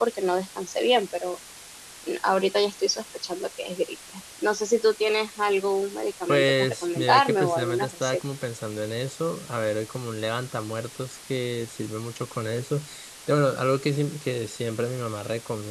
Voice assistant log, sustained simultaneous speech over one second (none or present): present